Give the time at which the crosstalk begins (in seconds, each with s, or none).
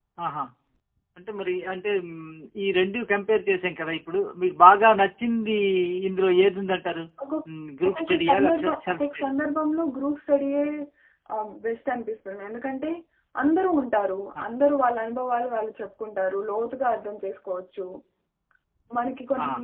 7.9 s